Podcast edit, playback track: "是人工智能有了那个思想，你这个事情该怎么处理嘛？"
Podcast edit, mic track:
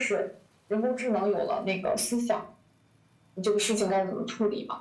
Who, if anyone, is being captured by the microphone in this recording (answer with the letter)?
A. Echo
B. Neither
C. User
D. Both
A